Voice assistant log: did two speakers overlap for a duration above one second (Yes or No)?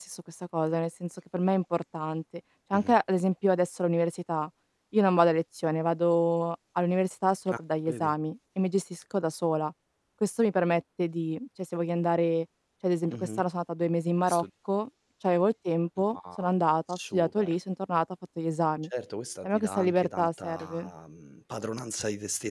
Yes